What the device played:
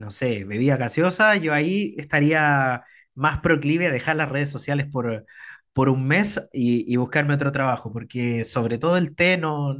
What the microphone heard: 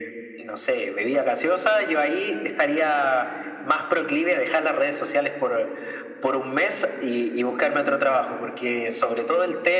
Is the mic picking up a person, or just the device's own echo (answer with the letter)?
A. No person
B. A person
A